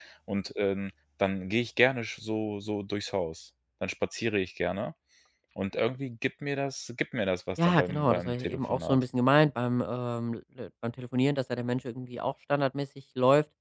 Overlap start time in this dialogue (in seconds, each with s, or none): 7.6 s